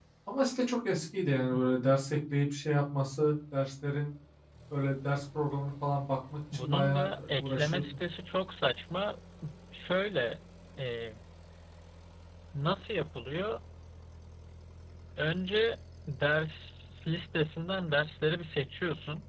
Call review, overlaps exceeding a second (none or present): present